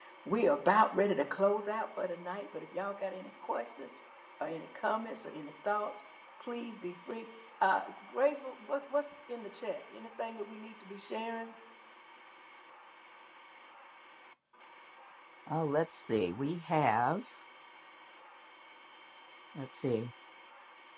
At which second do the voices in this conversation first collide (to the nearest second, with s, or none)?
none